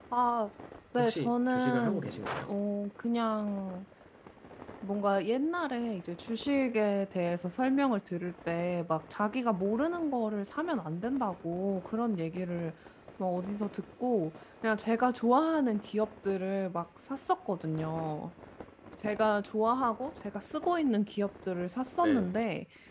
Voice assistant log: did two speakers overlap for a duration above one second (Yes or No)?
Yes